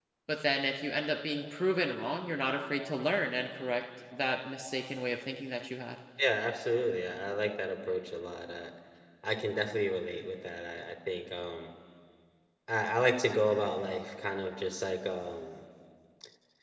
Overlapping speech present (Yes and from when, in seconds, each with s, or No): No